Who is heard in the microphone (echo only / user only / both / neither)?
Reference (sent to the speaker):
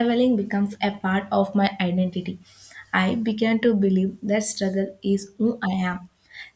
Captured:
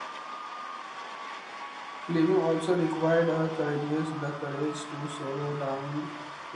user only